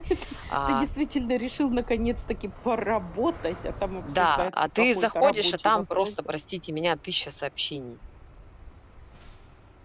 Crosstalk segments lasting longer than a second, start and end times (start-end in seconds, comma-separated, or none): 4.2-6.3